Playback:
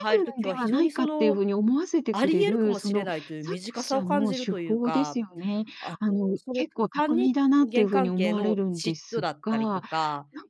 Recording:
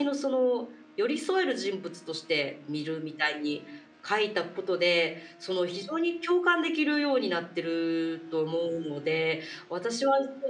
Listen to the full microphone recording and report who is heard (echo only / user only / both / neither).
user only